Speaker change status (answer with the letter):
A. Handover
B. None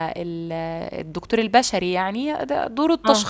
B